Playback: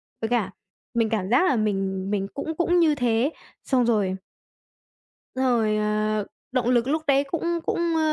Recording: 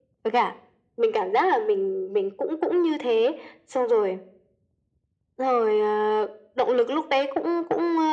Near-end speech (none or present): none